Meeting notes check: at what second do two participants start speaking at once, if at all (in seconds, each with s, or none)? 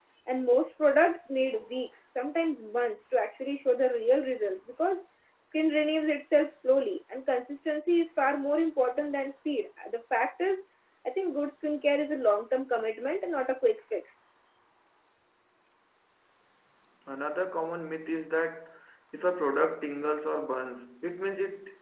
none